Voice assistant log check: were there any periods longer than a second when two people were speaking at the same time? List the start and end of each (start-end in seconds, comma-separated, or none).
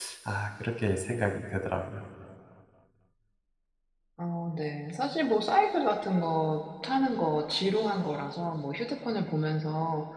none